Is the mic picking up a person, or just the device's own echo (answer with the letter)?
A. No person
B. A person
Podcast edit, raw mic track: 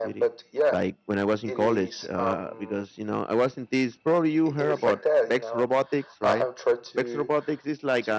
B